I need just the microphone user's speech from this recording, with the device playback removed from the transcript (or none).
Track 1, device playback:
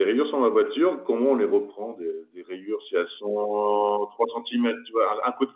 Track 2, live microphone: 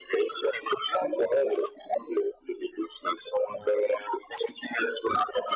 none